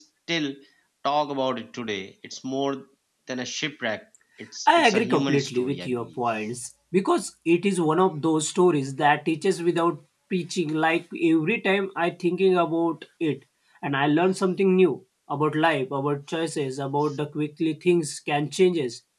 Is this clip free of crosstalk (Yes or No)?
No